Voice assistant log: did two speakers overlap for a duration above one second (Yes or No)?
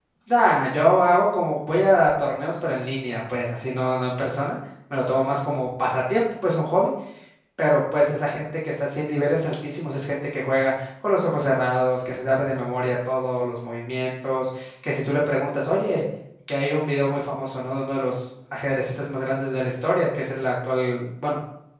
No